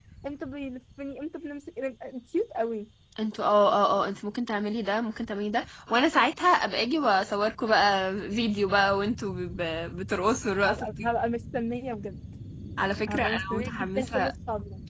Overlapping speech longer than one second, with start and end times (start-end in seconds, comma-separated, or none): 13.1-14.3